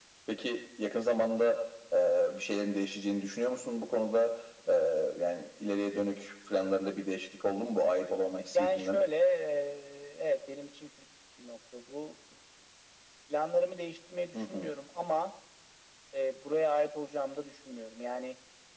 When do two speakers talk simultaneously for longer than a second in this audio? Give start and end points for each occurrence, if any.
none

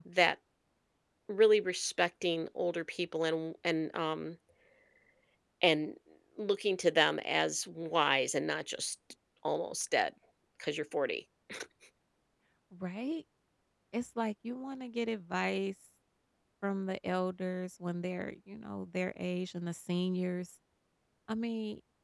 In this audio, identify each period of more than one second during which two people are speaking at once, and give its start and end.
none

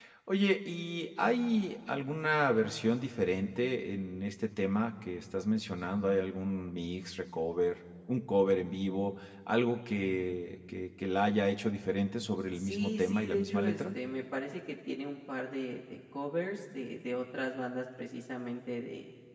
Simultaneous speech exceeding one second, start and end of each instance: 12.6-13.8

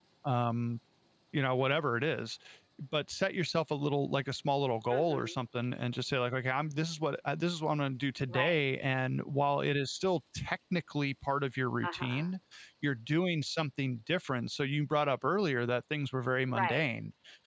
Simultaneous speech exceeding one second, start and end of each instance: none

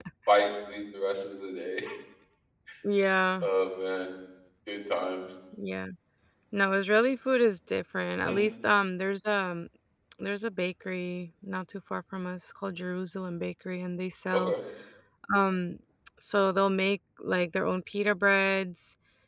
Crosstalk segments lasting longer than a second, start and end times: none

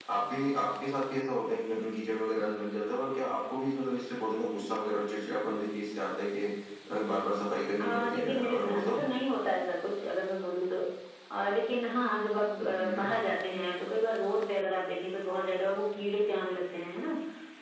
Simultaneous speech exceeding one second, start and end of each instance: 7.8-9.0

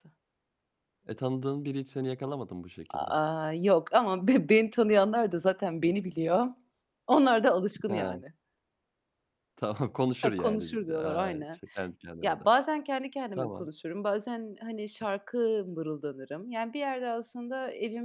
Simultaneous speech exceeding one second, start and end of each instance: 10.2-11.4

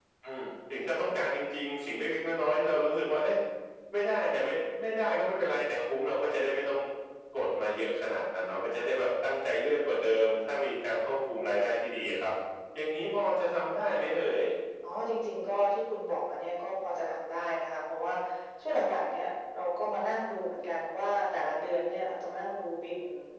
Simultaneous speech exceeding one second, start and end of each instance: none

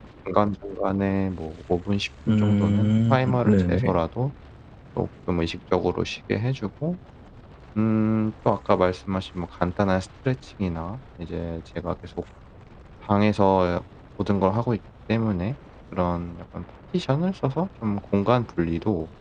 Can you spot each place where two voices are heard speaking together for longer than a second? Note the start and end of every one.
2.3-4.0

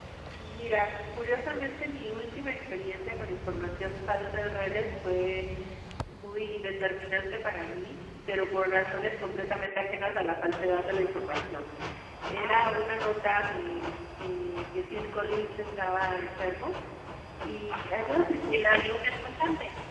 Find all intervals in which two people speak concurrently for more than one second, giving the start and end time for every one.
17.7-19.0

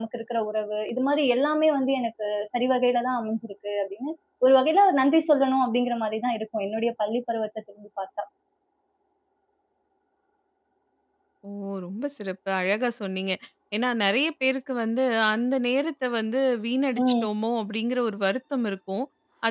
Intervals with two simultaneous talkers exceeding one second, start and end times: none

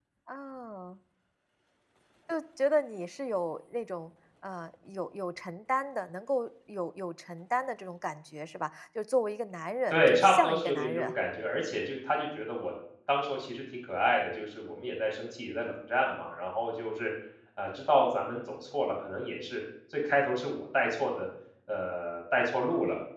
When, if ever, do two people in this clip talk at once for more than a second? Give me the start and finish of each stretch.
9.9-11.1

